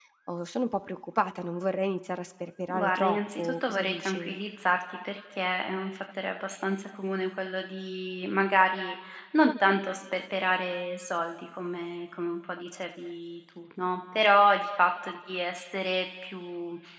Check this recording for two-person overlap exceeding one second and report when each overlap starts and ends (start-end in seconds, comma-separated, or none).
2.7-4.3